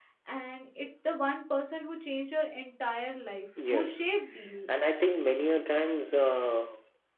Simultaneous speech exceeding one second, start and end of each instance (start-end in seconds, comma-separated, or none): none